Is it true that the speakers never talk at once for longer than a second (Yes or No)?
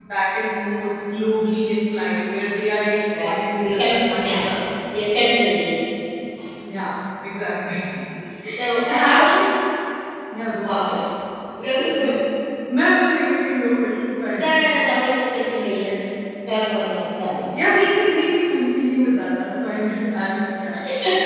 No